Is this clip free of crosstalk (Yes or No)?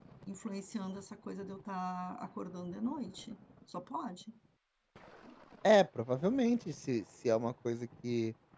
Yes